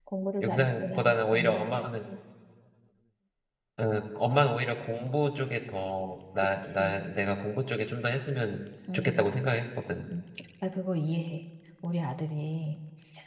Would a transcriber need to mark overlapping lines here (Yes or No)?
Yes